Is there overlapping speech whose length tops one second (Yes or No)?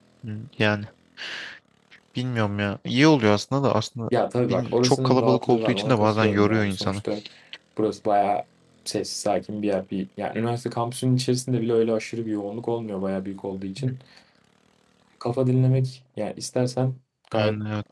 Yes